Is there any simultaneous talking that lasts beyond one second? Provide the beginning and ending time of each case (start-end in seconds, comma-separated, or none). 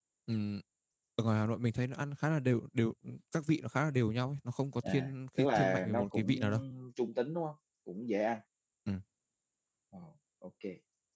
4.8-6.4